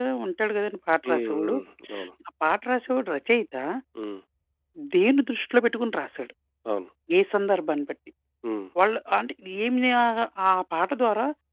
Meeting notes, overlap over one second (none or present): none